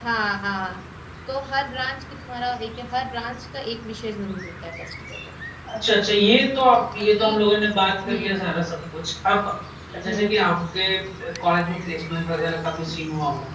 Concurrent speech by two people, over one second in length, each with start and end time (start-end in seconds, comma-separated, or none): none